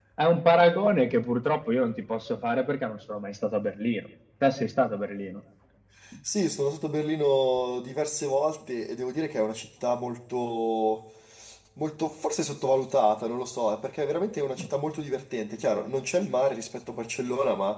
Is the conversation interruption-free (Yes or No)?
Yes